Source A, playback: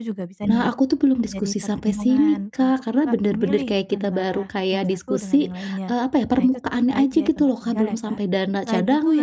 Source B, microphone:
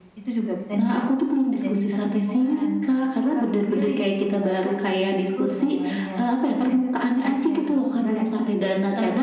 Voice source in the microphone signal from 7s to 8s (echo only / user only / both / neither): echo only